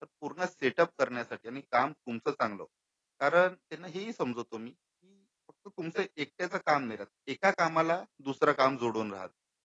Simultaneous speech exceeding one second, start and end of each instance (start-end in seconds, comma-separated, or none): none